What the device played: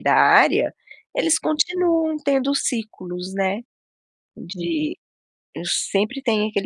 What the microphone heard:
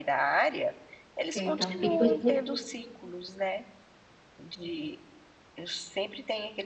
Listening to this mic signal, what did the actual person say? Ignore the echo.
Ok então, e você

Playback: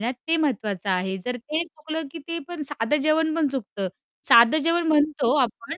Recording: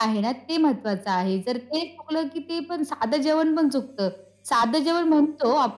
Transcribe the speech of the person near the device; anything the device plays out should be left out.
none

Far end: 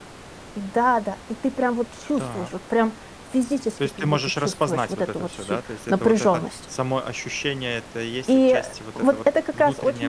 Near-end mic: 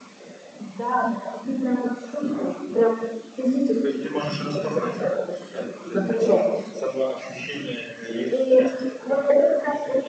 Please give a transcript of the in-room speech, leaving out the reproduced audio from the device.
none

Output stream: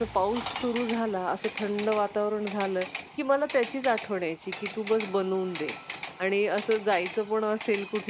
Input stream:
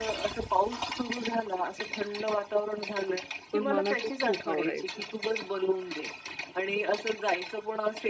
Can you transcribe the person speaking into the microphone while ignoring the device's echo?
पण मला तो खूप आवडायचा

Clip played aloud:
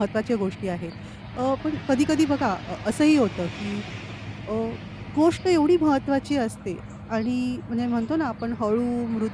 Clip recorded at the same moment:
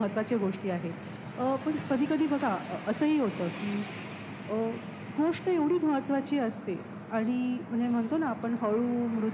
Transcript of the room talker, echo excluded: none

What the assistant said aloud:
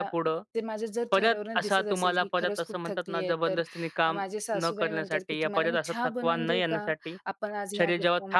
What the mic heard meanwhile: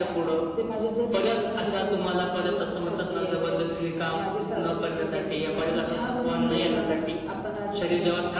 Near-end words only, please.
none

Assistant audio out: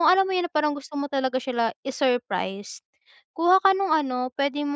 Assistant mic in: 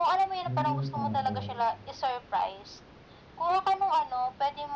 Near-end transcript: Mm, oo.

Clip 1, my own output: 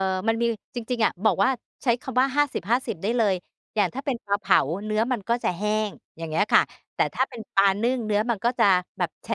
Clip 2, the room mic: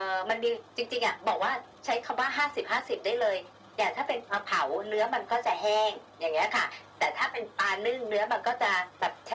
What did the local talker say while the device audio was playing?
none

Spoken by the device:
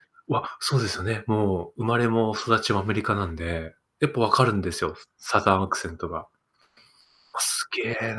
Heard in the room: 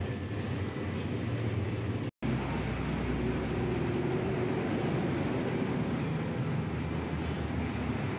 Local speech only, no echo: none

